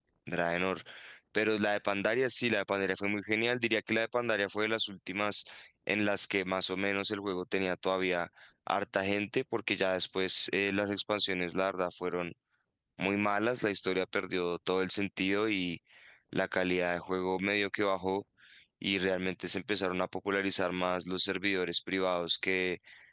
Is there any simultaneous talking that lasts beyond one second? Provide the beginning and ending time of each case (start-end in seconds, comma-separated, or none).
none